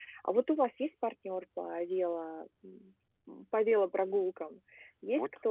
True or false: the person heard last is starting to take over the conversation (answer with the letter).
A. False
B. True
B